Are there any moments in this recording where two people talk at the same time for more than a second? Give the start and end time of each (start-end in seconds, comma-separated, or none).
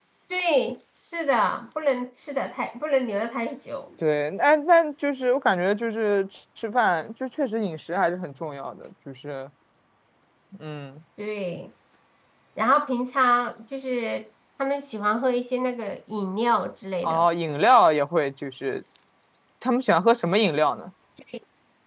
none